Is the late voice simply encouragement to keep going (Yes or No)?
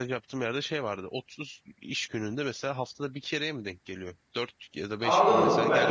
No